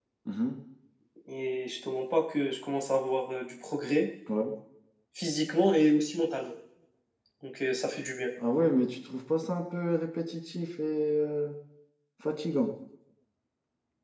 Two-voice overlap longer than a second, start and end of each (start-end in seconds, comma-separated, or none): none